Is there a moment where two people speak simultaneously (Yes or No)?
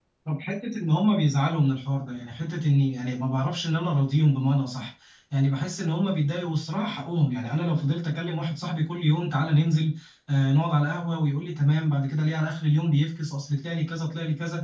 No